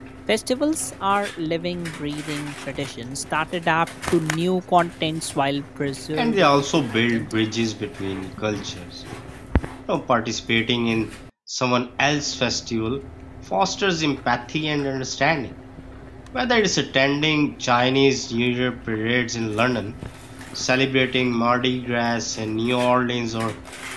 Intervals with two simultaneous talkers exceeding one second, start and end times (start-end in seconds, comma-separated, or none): 6.1-7.4